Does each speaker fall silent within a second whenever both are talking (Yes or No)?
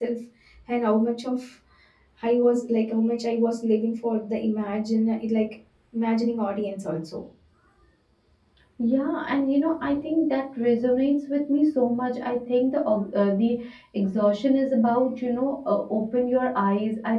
Yes